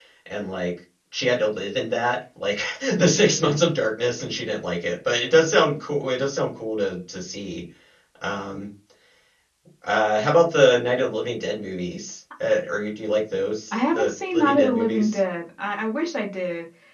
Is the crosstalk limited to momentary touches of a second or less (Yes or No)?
No